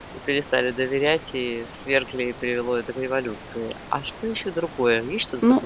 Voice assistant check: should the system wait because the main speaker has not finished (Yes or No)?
No